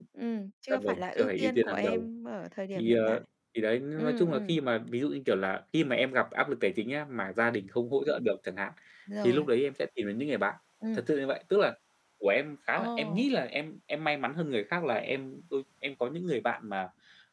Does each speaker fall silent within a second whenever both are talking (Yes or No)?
No